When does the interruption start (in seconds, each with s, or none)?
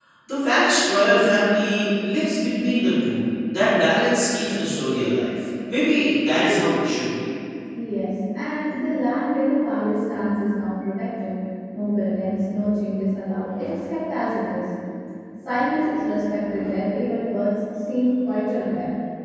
none